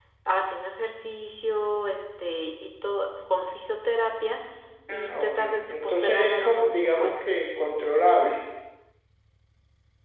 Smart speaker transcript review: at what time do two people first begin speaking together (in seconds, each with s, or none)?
4.9 s